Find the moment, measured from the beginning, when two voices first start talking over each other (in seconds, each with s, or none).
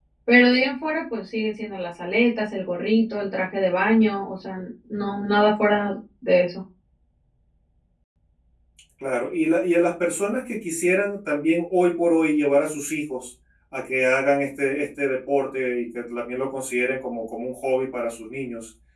none